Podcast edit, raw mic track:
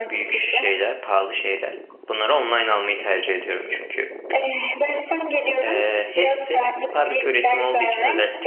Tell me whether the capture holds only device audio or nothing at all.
No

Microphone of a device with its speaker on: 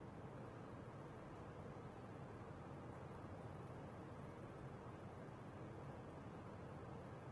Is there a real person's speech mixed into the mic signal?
No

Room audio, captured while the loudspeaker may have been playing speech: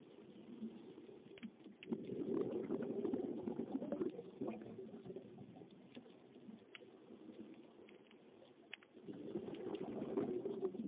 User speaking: No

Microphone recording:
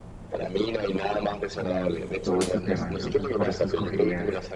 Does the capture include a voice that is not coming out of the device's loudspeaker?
Yes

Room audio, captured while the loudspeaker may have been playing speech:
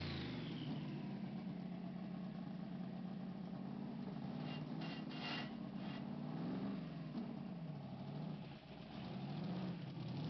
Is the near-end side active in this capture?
No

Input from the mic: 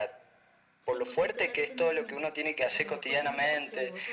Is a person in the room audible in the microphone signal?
Yes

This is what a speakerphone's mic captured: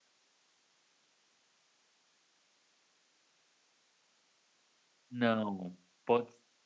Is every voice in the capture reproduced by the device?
No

